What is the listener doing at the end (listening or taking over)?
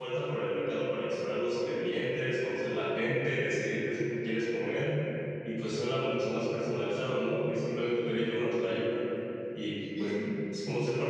listening